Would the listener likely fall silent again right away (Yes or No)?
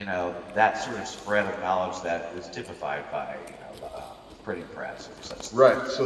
No